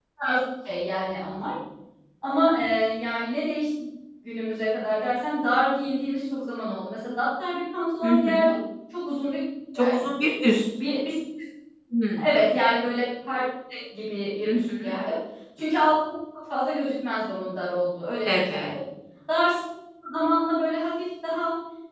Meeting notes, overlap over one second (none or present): none